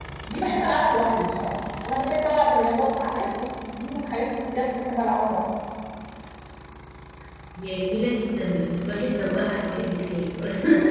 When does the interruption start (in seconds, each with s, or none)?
none